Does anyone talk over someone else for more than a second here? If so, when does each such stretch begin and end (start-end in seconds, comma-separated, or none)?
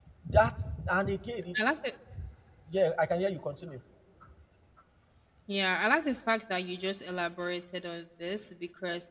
none